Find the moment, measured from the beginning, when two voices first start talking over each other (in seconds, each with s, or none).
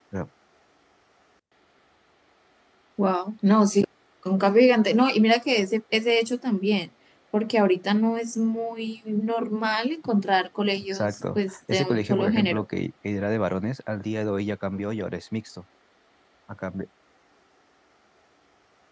10.8 s